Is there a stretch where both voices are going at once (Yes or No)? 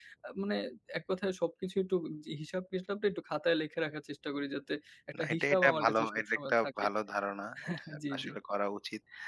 Yes